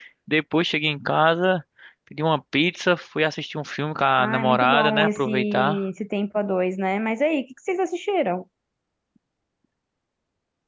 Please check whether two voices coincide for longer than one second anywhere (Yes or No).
Yes